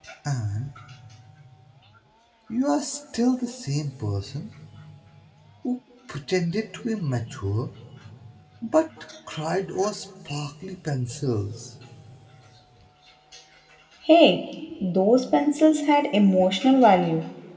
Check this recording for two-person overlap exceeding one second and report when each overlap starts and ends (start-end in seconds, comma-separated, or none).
none